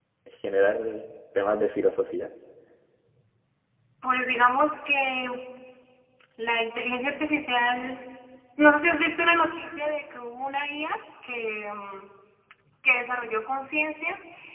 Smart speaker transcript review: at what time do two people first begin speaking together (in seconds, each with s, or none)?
none